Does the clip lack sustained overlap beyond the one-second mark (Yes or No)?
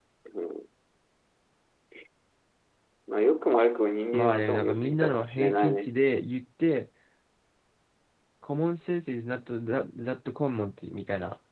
No